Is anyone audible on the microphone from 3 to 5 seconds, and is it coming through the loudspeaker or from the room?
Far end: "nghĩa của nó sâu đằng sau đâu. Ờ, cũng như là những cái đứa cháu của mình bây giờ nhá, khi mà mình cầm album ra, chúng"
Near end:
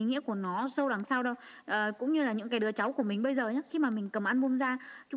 echo only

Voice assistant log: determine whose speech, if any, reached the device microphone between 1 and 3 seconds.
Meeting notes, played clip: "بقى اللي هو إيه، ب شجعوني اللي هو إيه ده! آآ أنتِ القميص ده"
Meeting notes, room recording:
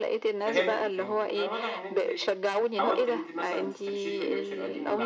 both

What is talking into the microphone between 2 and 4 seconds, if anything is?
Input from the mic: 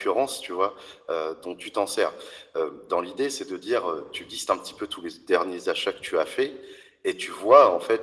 echo only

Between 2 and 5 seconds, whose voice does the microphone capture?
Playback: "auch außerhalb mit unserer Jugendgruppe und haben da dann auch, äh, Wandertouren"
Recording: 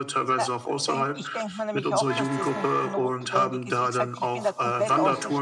both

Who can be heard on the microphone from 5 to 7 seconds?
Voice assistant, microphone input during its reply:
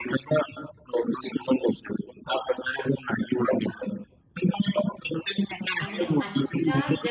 both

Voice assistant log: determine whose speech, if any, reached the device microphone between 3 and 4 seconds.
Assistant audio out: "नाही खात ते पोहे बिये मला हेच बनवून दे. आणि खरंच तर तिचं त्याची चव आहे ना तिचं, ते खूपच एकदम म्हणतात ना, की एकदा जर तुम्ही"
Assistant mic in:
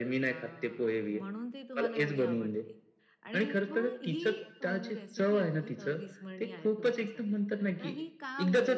both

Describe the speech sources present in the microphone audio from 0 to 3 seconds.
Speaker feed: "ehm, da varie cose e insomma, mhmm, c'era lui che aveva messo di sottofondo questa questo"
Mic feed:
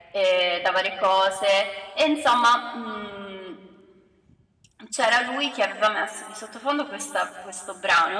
echo only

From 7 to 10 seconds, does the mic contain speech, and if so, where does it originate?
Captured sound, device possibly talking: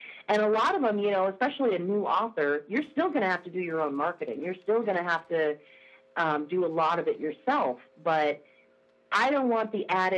echo only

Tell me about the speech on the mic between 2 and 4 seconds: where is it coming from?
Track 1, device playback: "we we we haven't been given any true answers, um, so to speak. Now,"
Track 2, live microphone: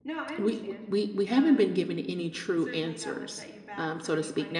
both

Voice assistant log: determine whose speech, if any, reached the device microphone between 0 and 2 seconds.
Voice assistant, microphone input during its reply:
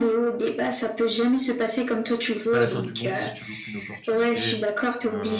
echo only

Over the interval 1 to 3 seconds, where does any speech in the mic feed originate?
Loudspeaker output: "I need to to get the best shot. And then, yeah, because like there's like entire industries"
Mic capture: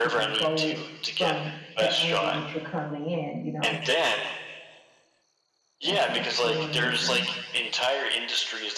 both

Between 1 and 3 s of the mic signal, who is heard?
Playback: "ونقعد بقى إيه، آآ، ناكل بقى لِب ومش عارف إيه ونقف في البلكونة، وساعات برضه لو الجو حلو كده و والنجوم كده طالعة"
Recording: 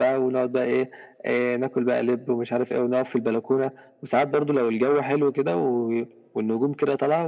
echo only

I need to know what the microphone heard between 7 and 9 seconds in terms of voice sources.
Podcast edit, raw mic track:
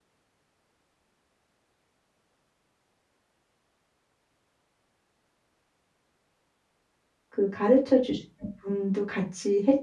user only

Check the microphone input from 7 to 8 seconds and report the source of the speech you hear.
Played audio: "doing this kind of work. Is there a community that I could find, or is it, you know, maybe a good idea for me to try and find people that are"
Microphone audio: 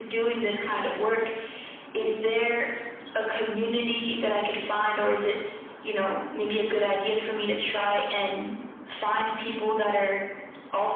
echo only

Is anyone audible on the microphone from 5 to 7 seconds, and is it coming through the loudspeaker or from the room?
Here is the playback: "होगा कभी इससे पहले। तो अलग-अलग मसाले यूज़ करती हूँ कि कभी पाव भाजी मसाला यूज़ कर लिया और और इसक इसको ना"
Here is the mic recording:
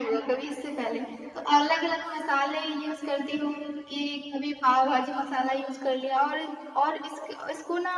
echo only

